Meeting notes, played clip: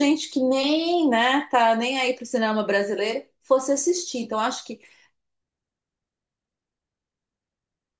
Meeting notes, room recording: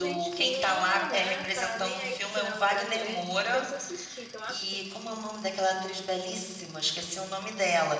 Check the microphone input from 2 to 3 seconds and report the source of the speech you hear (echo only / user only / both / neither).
both